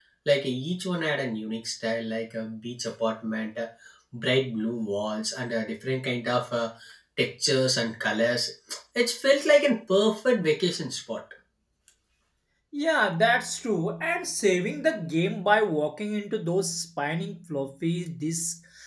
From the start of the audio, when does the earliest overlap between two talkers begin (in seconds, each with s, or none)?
none